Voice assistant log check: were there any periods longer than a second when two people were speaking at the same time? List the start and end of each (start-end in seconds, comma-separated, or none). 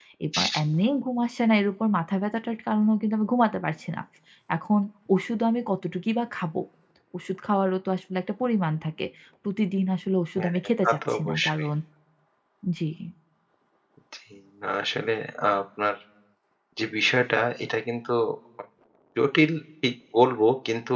10.4-11.7